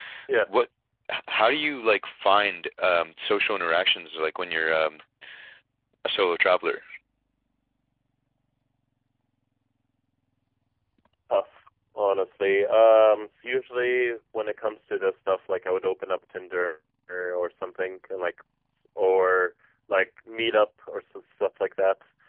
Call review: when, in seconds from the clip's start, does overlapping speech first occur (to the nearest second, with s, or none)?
none